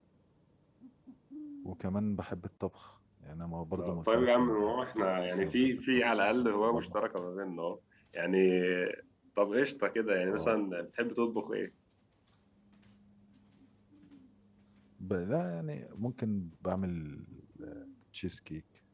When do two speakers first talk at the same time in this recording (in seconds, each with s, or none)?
3.8 s